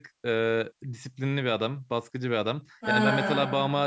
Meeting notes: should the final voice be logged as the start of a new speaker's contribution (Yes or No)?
No